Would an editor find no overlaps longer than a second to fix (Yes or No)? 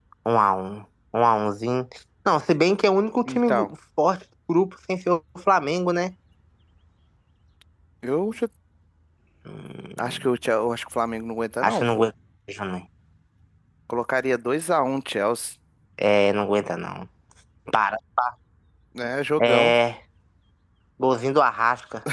Yes